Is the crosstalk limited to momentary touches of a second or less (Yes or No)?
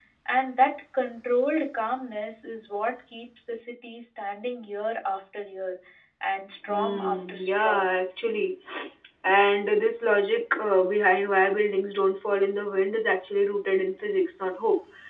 No